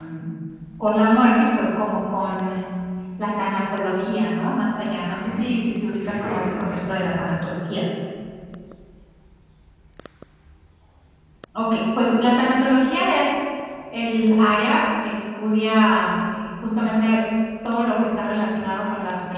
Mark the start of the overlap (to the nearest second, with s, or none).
5 s